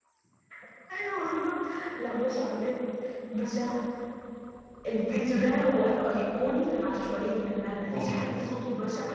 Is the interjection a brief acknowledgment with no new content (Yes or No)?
Yes